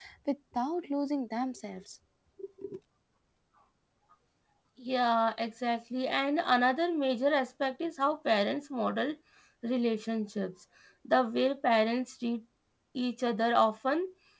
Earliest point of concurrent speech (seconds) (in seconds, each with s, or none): none